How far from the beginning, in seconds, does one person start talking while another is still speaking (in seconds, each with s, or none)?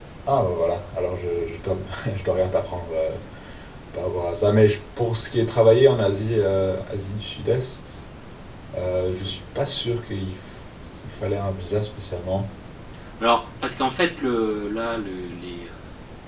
none